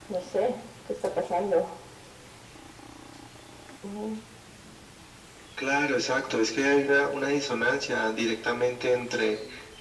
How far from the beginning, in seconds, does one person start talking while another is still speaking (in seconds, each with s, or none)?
none